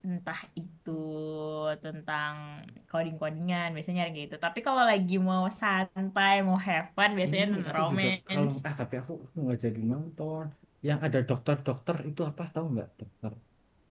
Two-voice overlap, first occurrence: 7.2 s

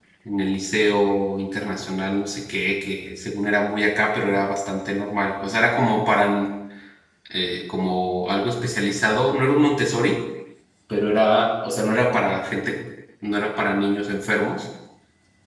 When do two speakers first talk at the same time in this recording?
none

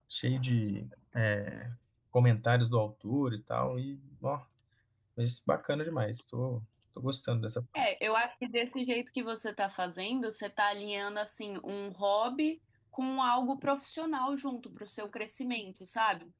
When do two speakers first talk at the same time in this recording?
none

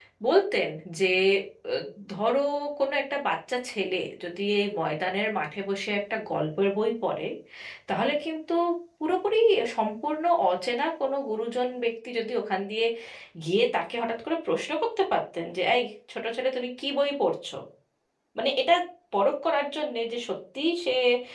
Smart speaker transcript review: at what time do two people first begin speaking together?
none

